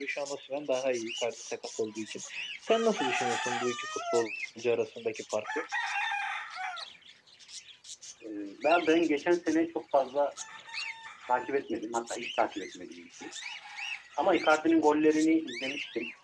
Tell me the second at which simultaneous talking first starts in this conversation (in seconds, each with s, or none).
none